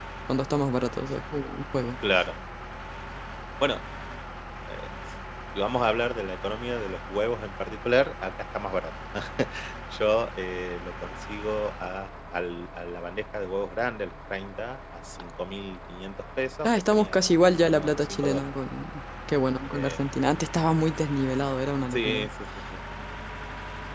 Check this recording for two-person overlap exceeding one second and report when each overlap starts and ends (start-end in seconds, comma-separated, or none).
16.6-18.5